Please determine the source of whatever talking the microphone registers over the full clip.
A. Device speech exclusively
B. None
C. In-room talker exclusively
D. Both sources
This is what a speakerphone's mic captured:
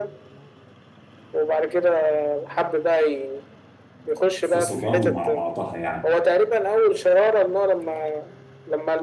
D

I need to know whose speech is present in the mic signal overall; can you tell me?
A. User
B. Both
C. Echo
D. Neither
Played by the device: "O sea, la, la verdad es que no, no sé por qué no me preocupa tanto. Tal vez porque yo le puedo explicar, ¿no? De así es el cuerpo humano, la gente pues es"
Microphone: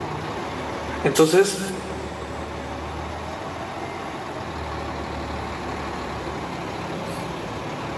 A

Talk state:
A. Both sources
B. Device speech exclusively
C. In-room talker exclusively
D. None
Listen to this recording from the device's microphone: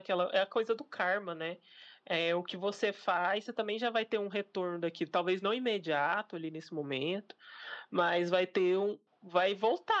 B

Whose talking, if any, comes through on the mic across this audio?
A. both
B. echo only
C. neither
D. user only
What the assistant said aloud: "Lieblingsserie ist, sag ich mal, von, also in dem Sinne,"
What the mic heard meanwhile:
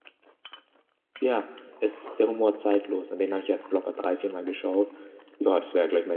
D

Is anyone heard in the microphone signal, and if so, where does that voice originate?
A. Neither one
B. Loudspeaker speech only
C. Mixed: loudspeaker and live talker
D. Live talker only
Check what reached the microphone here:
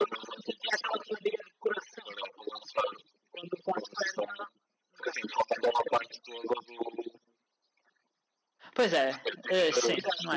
C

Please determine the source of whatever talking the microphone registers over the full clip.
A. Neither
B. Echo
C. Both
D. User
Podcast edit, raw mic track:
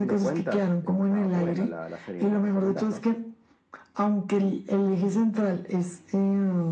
B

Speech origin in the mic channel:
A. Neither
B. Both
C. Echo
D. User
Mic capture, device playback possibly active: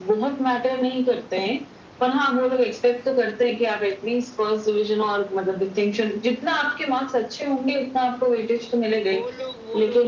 B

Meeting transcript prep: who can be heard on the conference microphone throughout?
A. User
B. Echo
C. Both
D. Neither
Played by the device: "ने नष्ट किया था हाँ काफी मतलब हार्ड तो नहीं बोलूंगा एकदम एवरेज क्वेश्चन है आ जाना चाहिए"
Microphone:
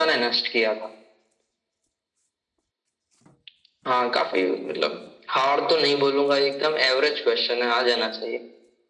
B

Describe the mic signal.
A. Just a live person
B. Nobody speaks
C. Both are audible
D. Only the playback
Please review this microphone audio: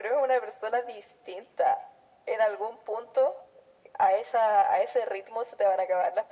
D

